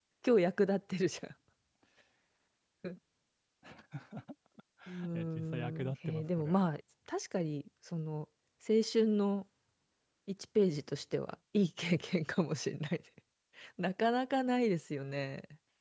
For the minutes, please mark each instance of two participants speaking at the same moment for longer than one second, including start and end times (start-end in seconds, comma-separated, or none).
5.1-6.5